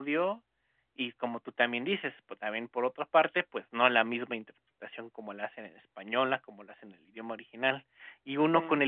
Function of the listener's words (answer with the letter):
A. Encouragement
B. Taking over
A